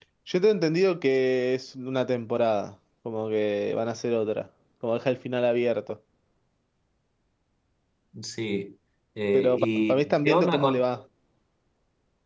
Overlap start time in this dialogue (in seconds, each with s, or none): 9.3 s